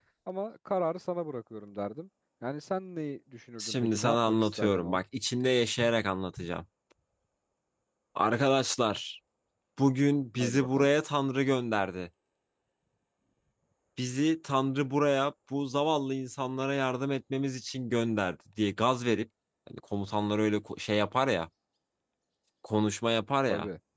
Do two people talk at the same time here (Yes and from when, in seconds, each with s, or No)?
Yes, from 3.6 s